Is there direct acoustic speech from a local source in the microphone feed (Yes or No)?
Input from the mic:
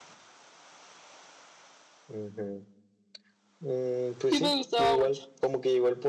Yes